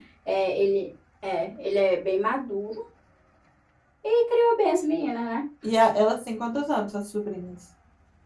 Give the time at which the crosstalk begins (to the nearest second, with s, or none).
none